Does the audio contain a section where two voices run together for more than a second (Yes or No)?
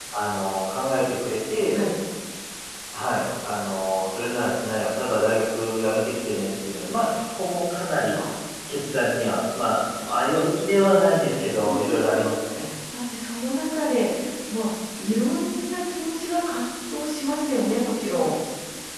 No